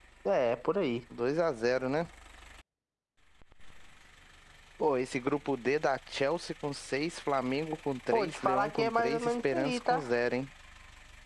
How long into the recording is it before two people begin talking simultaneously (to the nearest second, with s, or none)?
8 s